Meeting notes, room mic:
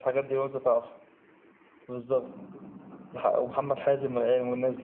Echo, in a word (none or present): none